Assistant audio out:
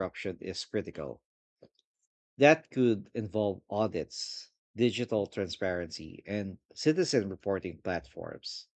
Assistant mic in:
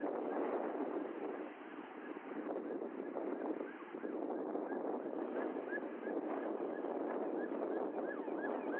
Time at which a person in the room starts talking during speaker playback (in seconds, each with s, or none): none